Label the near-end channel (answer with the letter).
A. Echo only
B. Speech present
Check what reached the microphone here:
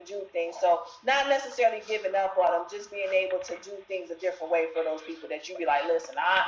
A